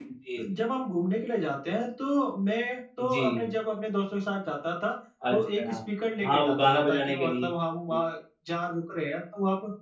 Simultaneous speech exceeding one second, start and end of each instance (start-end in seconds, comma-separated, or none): 6.2-7.5